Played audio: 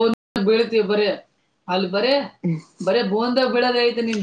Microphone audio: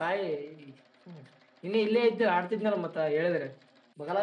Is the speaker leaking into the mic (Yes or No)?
No